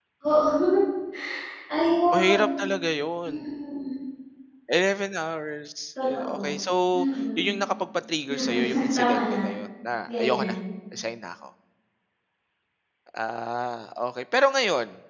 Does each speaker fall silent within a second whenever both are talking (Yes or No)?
No